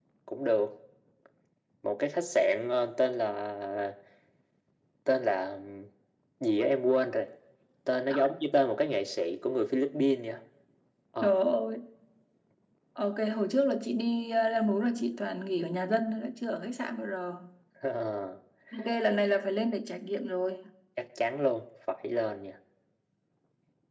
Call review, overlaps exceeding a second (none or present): none